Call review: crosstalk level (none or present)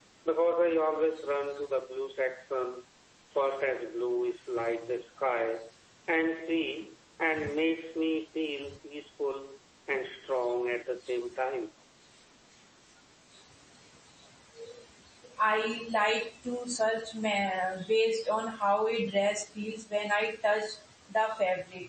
none